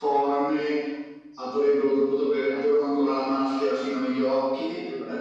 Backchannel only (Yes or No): Yes